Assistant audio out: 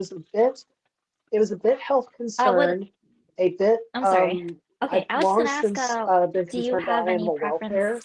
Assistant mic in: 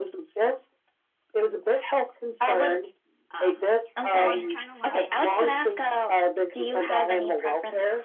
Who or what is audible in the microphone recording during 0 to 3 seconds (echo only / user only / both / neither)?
echo only